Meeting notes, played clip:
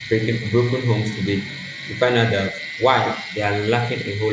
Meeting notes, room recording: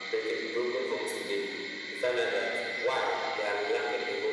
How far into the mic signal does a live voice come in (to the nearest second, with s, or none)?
none